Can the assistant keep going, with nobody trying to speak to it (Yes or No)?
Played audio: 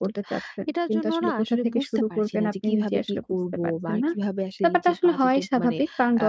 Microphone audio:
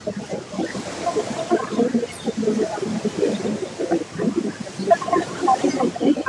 Yes